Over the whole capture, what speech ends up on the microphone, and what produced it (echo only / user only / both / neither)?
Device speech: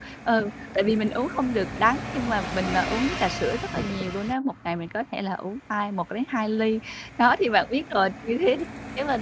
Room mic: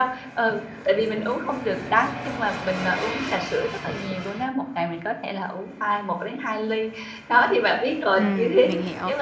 both